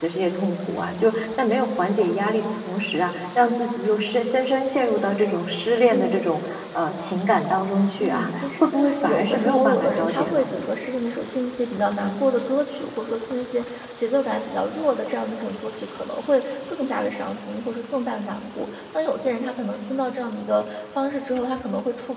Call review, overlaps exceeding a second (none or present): present